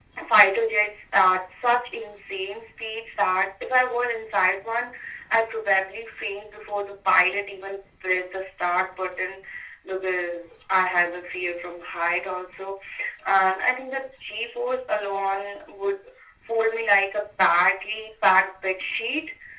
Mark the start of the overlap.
none

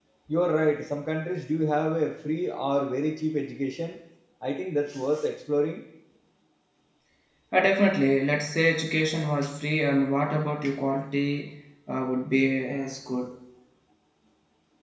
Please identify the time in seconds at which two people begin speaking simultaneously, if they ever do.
none

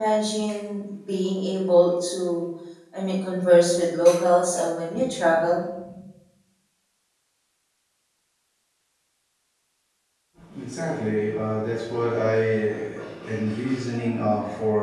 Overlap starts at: none

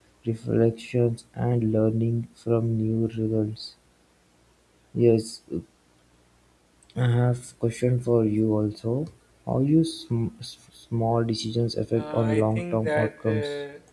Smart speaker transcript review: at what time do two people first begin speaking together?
12.0 s

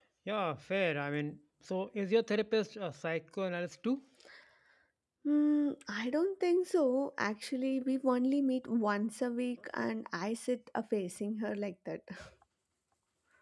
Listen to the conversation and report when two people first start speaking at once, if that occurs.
none

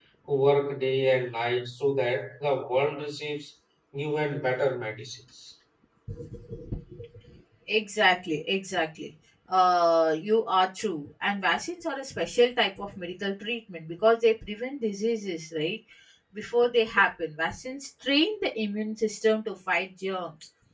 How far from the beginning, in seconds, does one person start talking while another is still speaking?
none

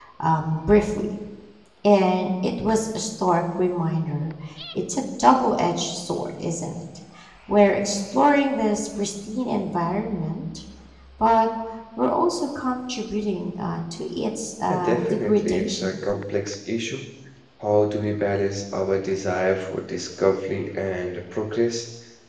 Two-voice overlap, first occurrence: 14.7 s

